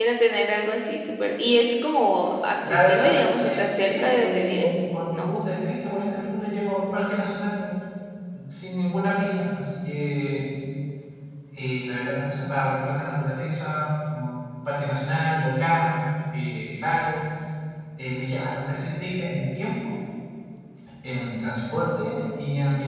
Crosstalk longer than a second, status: present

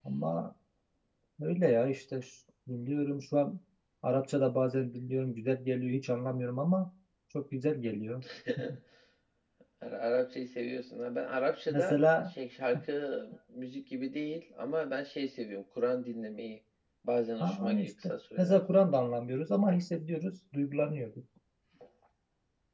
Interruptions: present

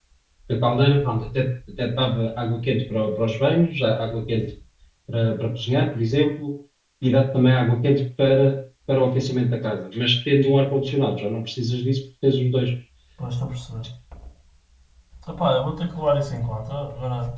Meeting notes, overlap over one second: none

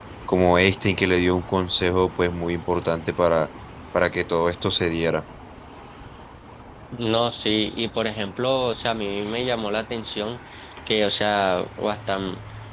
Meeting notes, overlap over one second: none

